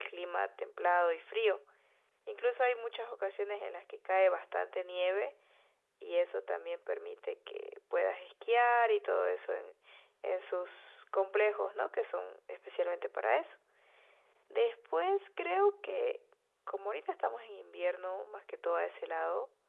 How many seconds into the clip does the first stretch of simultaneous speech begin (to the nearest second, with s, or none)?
none